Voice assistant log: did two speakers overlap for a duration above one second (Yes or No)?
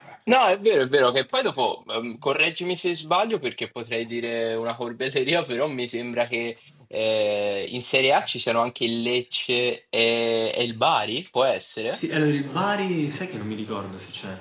No